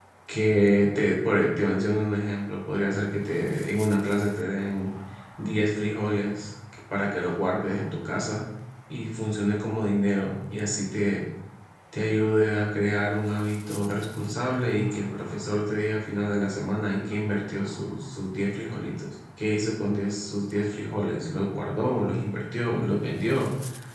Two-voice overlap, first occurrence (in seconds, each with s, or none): none